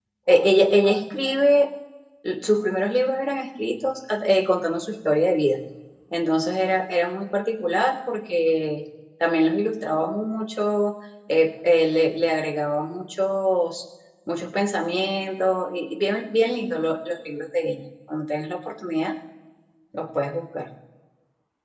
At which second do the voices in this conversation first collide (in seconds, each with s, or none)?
none